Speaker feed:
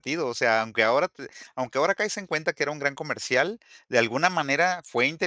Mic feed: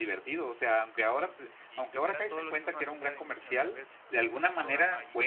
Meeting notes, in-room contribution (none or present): present